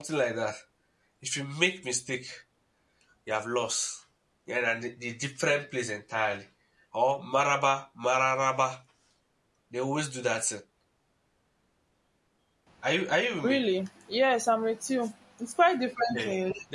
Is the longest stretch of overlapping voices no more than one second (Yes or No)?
Yes